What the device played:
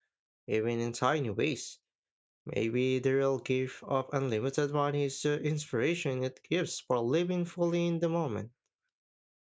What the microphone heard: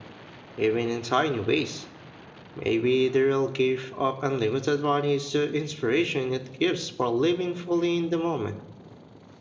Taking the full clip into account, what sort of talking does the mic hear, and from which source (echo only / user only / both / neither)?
echo only